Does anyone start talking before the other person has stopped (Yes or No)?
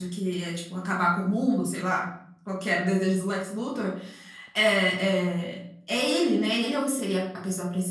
No